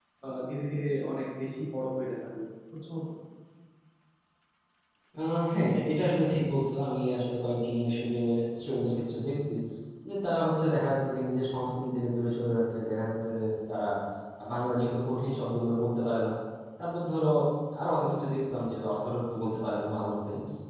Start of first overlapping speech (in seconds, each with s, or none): none